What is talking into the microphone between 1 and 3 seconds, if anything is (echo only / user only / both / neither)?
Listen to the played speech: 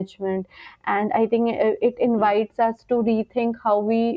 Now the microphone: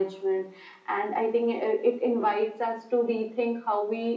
echo only